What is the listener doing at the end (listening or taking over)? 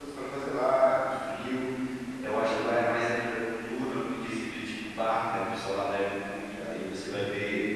listening